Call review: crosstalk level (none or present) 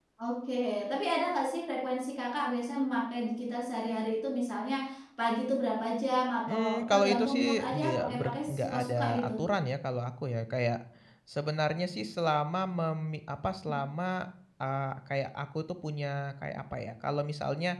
present